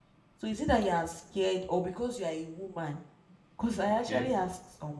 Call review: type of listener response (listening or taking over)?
listening